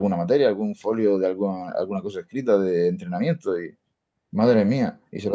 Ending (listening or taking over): listening